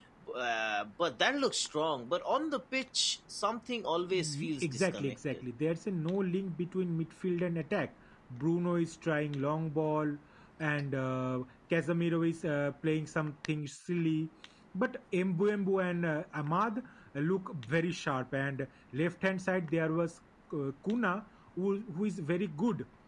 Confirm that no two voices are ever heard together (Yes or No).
No